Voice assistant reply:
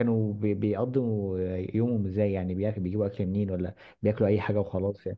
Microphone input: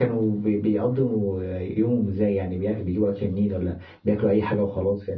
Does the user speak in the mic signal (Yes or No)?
No